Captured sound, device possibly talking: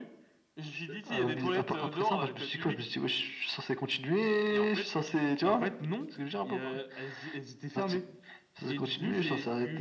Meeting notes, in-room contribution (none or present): none